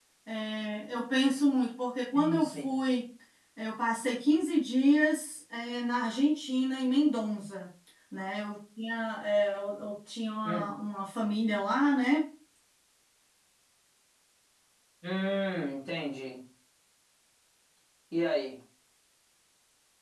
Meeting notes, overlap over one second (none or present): none